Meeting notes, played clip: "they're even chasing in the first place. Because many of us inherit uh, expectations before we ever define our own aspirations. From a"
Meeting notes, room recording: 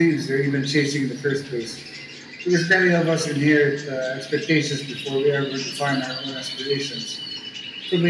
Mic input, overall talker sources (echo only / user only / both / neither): echo only